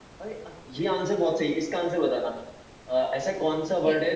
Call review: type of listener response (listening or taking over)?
listening